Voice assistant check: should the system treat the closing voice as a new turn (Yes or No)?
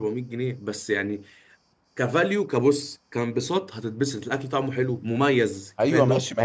Yes